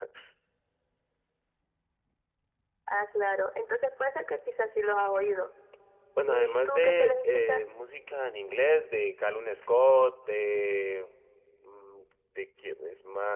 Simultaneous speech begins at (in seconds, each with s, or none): 6.3 s